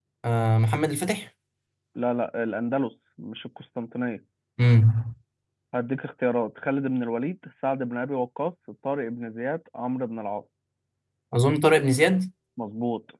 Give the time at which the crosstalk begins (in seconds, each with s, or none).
none